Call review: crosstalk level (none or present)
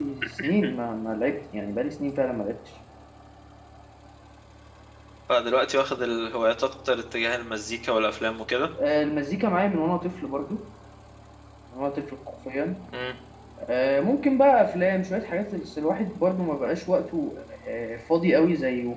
none